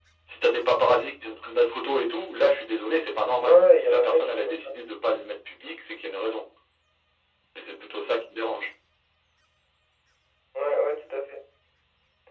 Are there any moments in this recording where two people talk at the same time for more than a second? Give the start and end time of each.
3.4-4.7

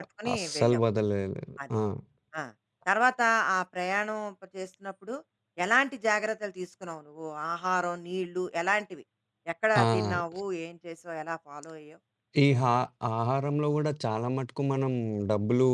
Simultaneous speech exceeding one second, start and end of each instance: none

